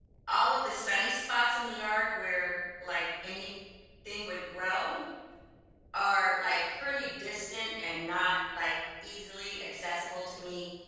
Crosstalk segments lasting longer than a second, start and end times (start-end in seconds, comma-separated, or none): none